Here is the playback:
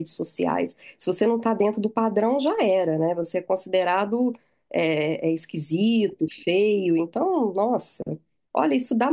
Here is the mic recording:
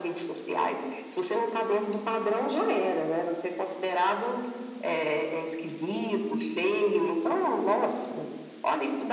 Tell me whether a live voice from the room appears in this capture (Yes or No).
No